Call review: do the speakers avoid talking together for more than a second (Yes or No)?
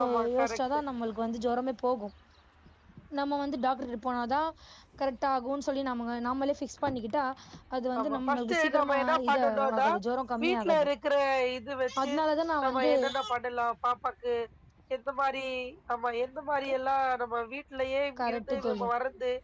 No